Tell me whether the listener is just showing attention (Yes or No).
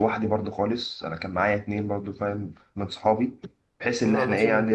No